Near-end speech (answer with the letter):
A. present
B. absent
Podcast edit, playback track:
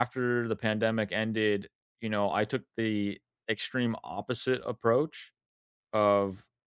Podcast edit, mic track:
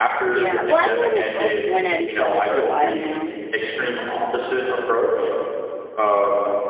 A